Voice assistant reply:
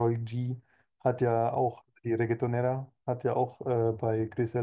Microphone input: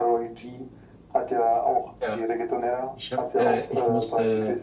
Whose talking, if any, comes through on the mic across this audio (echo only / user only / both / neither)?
both